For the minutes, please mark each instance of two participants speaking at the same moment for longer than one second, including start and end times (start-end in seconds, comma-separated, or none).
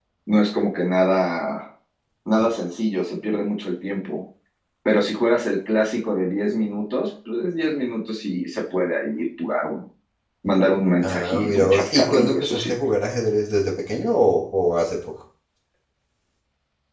11.0-12.7